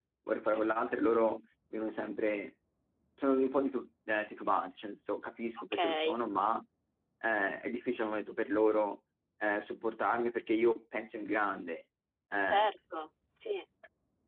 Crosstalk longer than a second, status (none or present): none